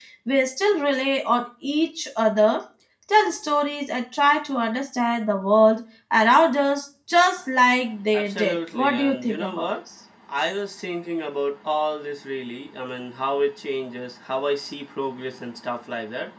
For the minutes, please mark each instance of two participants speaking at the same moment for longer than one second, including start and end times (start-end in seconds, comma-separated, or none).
8.1-9.7